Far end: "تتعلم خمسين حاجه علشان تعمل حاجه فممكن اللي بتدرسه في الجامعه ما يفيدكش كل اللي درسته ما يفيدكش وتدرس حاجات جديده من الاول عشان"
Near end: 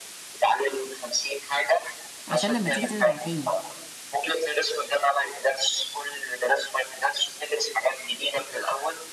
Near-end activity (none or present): present